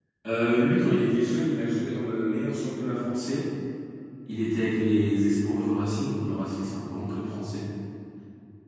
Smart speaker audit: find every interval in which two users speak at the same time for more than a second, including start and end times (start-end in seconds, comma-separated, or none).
none